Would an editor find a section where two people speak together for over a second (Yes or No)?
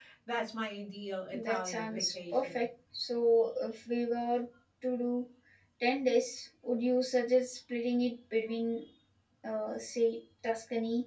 Yes